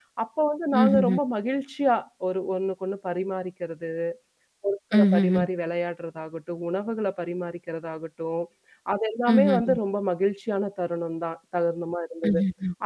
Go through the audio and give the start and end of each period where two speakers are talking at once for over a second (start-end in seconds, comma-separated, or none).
none